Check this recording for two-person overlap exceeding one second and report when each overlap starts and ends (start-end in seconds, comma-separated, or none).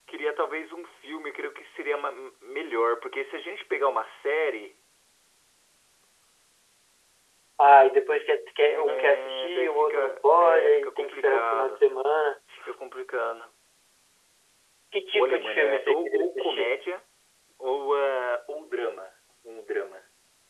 8.7-11.8, 15.1-16.7